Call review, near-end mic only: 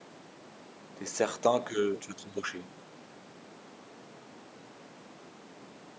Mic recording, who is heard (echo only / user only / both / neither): user only